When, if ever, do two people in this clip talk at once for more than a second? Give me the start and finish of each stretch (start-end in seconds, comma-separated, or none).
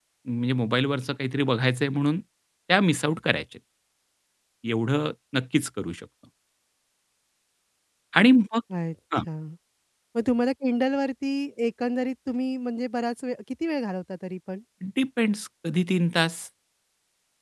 none